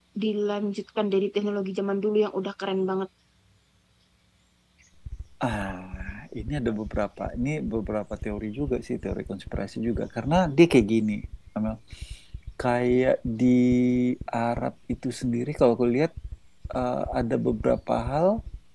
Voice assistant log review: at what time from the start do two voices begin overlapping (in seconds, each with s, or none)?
none